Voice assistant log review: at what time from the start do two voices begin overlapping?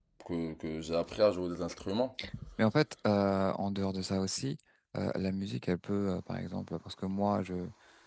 none

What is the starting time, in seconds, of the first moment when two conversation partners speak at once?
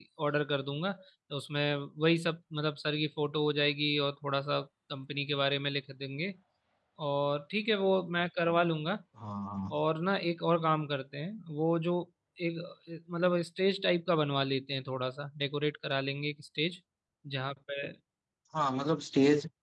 none

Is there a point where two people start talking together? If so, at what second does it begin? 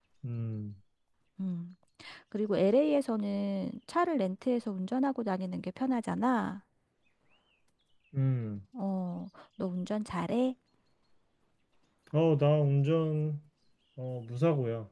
none

